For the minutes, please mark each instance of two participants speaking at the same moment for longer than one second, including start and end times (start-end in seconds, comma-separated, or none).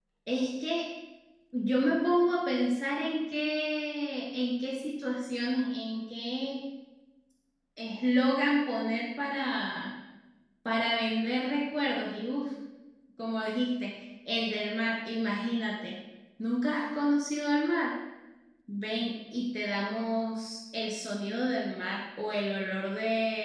none